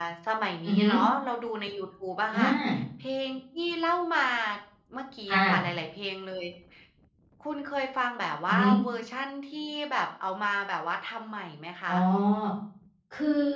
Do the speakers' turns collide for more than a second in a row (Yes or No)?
No